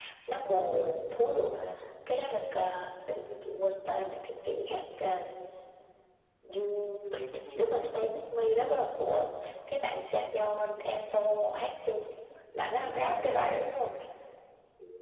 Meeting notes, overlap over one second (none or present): none